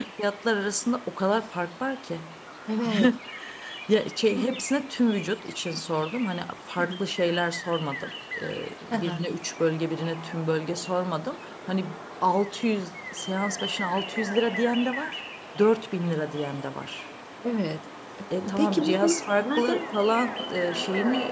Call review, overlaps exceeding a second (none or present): present